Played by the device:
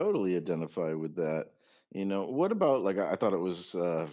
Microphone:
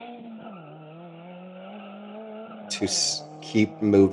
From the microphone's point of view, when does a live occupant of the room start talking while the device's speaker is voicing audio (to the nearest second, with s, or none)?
3 s